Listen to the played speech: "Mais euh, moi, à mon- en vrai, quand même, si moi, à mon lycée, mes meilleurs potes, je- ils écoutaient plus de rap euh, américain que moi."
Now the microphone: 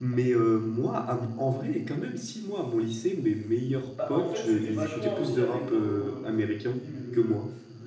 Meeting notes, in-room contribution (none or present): present